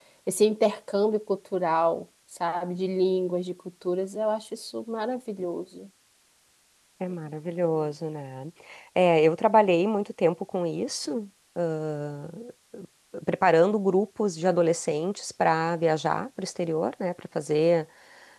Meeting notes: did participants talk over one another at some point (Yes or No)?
No